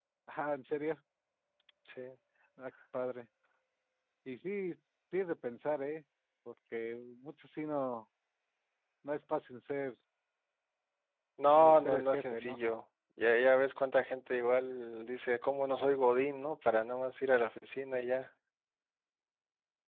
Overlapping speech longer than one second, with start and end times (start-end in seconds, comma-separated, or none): 11.5-12.7